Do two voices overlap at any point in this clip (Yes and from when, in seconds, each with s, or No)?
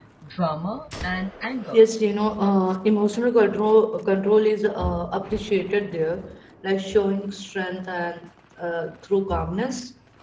No